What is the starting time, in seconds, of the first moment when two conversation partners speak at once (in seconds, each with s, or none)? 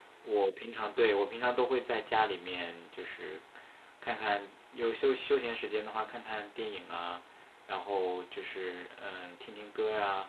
none